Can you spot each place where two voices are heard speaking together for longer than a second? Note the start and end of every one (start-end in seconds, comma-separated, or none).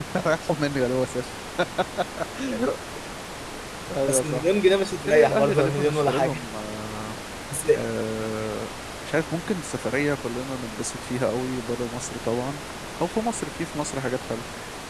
5.1-6.4